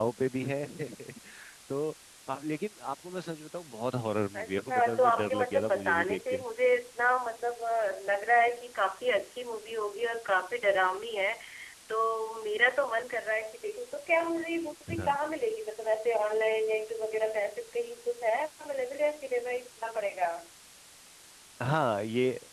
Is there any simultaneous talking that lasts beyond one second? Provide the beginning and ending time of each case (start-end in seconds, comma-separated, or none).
4.4-6.4